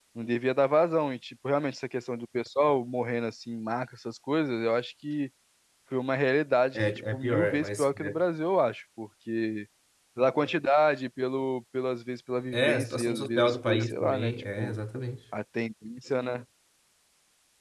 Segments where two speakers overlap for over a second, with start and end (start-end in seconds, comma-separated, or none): 6.8-8.2, 12.5-14.7